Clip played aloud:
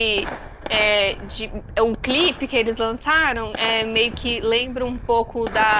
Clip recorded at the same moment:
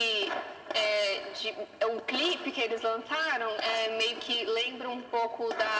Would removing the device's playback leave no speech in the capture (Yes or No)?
Yes